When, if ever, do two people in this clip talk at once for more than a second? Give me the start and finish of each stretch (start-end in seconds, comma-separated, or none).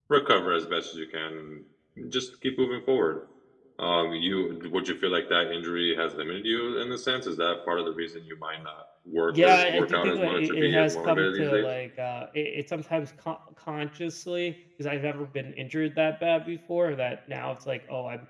9.3-11.7